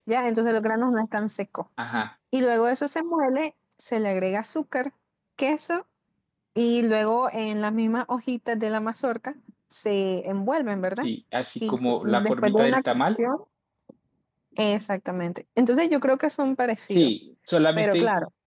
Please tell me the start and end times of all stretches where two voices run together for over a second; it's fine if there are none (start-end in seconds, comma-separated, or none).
11.7-13.2